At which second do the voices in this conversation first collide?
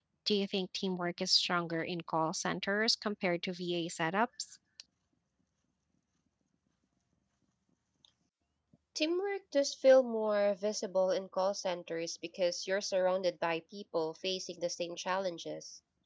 none

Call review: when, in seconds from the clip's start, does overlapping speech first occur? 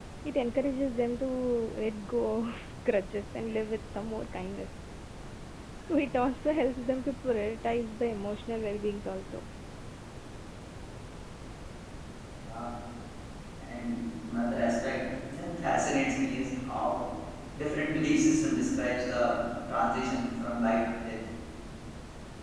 none

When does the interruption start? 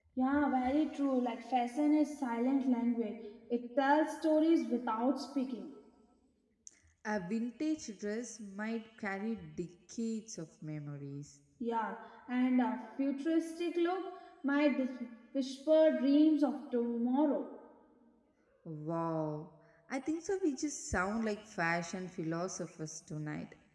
none

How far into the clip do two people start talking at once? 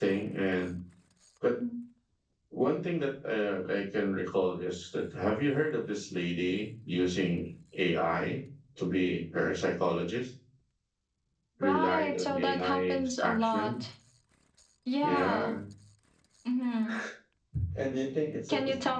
11.6 s

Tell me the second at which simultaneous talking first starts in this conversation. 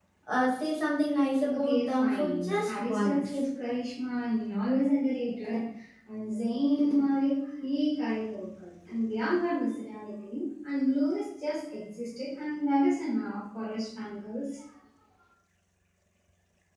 1.5 s

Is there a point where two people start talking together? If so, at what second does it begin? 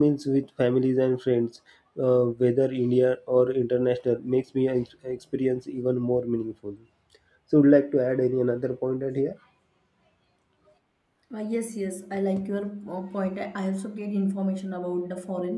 none

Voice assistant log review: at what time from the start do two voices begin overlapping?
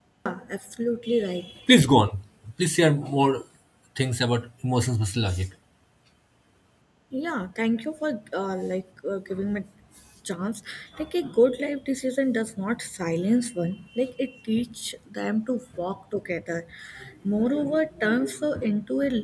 none

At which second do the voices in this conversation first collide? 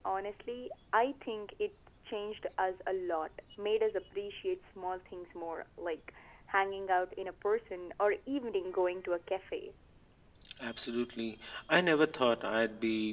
none

